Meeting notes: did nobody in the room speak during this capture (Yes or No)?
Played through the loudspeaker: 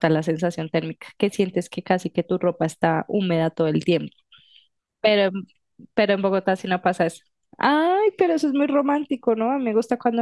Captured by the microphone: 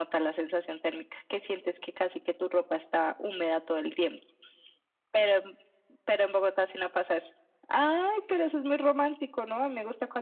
Yes